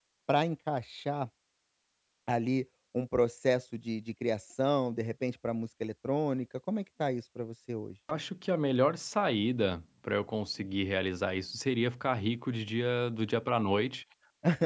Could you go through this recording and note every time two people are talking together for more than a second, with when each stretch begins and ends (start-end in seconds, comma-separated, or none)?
none